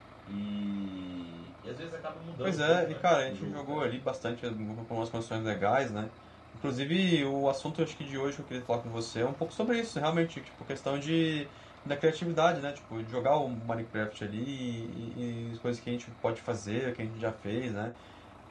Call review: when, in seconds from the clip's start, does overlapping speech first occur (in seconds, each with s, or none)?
2.4 s